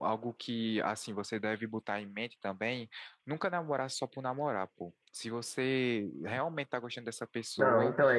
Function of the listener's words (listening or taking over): taking over